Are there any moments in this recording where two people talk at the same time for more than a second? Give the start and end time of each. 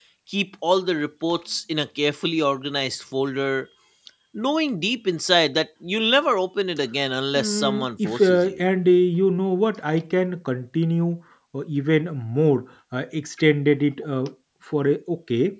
7.3-8.6

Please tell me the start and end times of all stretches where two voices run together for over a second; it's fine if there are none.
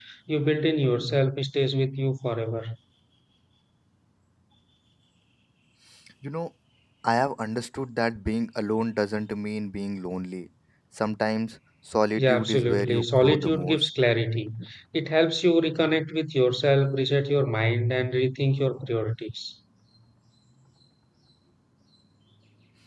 12.2-13.9

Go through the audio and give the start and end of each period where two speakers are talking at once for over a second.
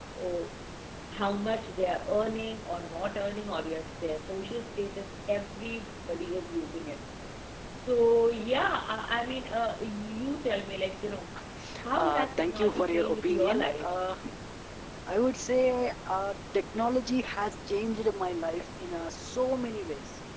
12.0-13.9

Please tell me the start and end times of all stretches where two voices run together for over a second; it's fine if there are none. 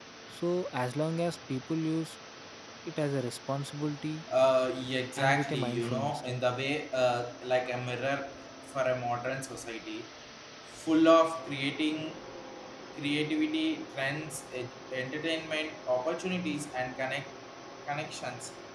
5.2-6.4

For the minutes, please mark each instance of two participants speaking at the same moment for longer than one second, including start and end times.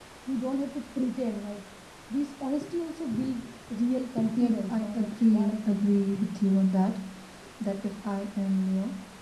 4.4-5.9

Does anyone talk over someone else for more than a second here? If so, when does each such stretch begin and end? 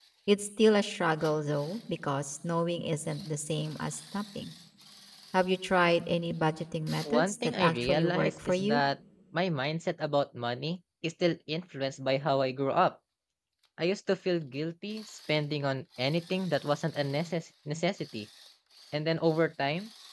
7.1-8.8

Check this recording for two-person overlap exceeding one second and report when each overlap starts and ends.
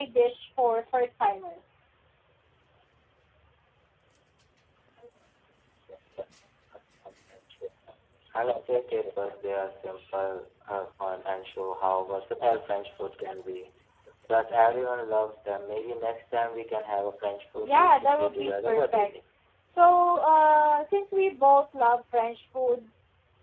17.6-19.1

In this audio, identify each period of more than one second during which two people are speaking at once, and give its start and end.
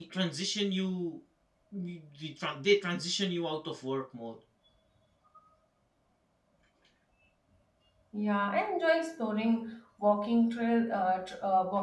none

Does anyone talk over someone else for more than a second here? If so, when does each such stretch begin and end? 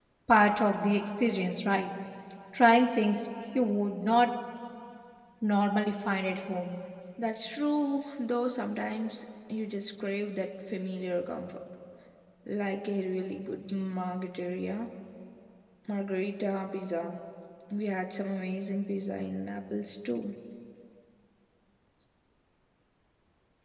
none

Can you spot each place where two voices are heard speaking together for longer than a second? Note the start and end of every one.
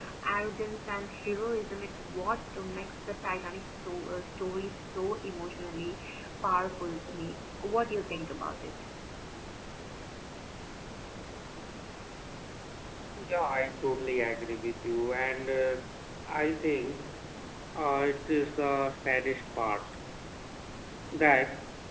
none

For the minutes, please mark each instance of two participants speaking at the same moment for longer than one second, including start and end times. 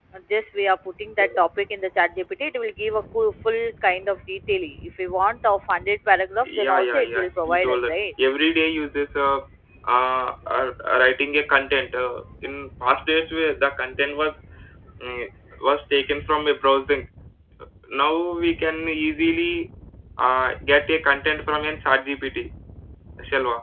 6.4-7.9

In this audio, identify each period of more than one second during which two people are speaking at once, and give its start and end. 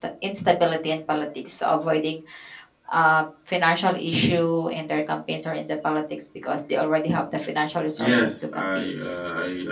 8.0-9.2

